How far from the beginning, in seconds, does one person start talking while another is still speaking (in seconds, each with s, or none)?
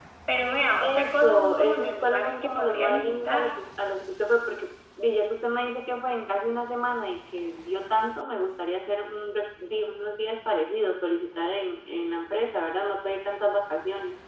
0.8 s